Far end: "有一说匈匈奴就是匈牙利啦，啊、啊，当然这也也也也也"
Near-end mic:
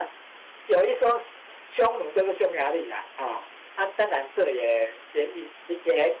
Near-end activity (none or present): none